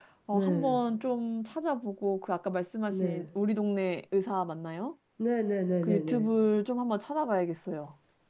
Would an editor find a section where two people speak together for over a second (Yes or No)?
No